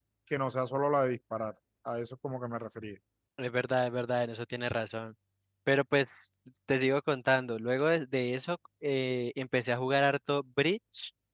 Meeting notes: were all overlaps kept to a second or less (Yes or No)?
Yes